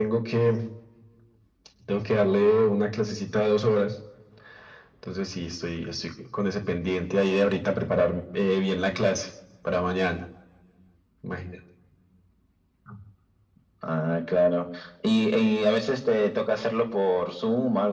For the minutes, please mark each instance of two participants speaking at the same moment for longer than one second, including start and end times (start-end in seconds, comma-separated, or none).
none